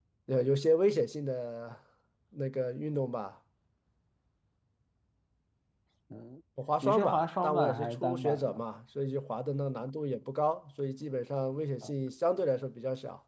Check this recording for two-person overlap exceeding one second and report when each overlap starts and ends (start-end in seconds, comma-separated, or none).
6.8-8.6